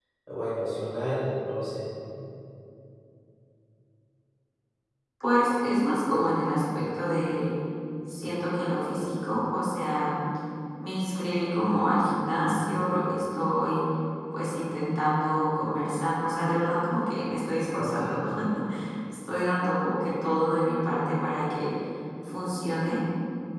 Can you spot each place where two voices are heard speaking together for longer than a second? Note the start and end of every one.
none

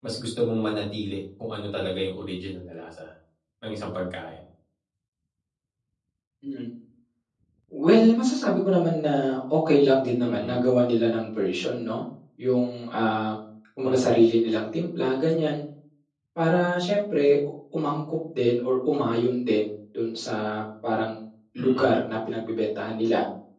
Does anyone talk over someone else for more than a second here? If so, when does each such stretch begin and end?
none

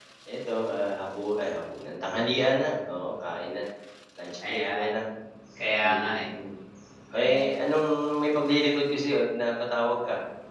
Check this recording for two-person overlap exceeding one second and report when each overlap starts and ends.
none

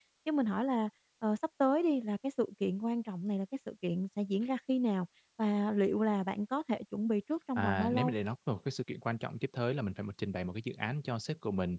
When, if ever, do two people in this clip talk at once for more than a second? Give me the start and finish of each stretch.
none

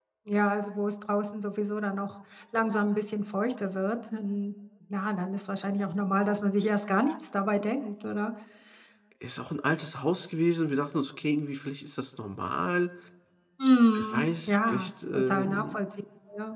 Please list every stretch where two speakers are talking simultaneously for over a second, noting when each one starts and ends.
13.9-15.8

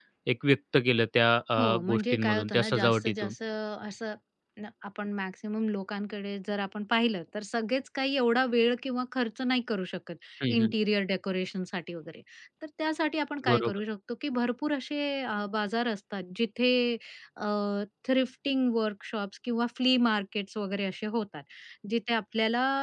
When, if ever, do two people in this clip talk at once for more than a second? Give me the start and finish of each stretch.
1.6-3.3

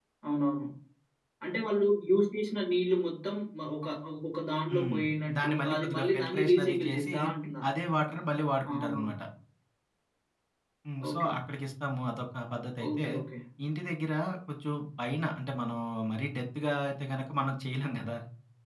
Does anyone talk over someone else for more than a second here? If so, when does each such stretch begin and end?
5.4-7.1

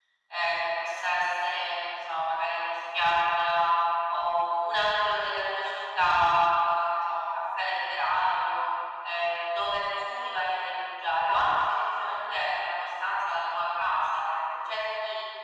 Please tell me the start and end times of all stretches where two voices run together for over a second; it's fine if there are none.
none

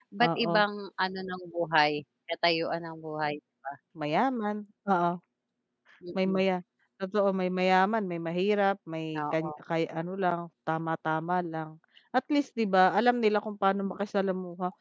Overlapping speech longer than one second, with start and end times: none

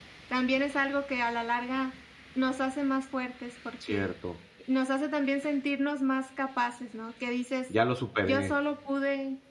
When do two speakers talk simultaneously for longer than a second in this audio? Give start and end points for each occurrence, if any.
none

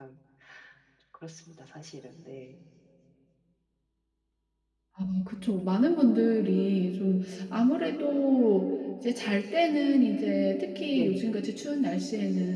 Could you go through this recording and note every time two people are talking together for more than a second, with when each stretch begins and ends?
none

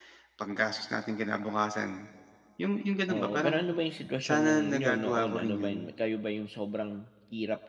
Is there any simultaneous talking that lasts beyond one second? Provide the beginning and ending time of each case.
4.2-5.9

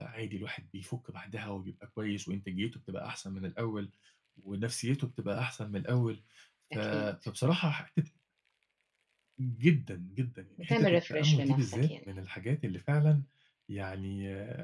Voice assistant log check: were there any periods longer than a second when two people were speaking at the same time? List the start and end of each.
10.6-11.9

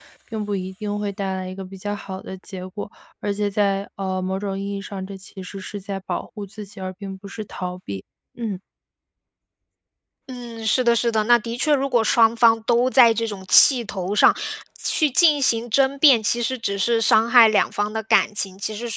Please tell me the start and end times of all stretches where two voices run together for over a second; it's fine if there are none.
none

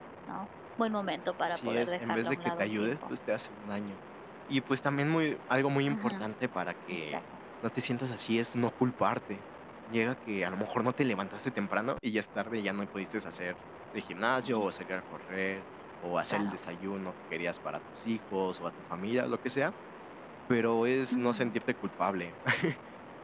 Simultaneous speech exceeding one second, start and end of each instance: 1.5-3.1

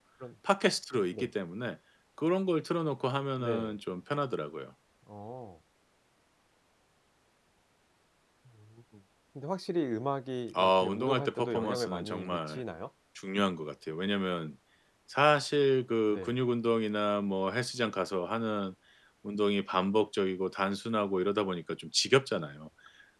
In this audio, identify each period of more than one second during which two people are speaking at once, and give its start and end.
10.5-12.6

